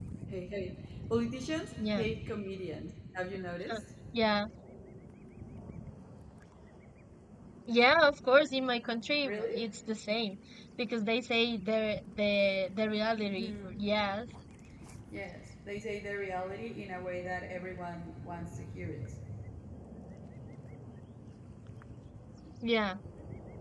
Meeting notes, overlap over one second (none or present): none